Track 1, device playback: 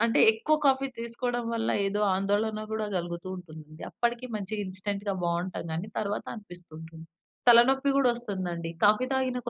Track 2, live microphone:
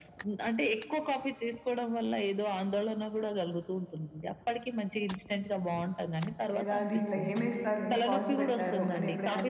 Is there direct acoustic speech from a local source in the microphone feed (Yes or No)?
Yes